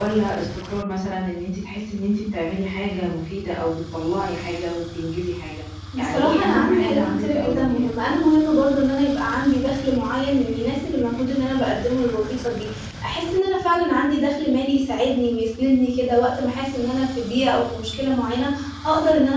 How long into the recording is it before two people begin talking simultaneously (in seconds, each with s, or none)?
5.9 s